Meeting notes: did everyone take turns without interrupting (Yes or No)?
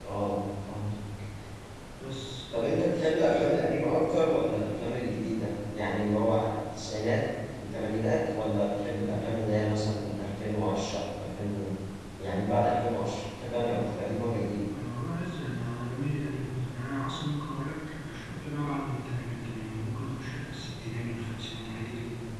Yes